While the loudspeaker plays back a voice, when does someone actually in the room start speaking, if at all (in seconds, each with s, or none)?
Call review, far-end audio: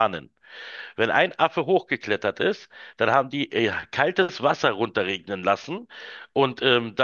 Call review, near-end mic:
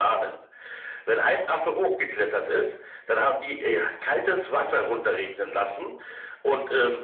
none